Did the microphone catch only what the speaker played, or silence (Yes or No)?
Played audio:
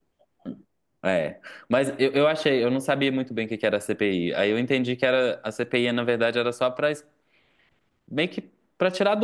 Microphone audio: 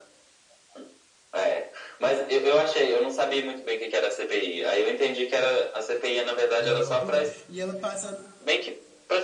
No